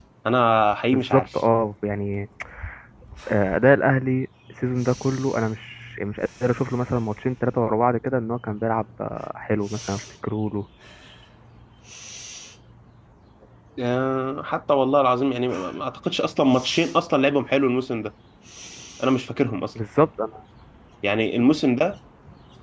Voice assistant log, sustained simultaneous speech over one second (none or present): none